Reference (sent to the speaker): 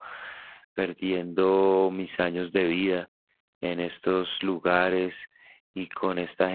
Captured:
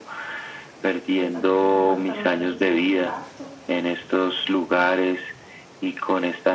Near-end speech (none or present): present